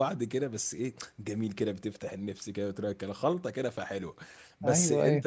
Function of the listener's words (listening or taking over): listening